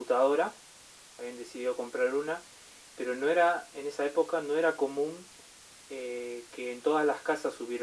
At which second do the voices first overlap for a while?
none

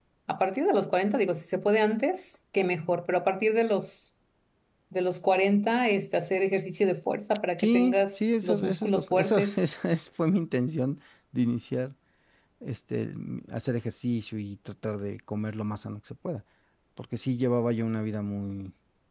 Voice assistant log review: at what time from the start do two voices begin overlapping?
7.6 s

